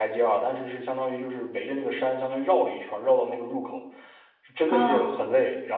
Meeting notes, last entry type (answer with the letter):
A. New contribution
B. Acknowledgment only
B